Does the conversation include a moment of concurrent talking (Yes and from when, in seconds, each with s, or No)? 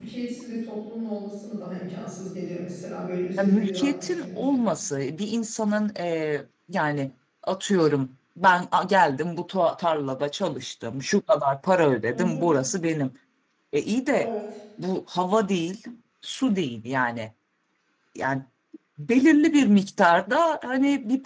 Yes, from 3.4 s